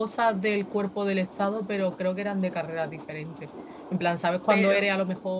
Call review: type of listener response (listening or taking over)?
listening